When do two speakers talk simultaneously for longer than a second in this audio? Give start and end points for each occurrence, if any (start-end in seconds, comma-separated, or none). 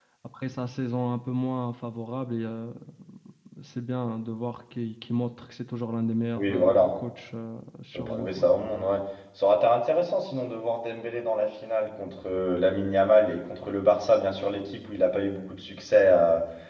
none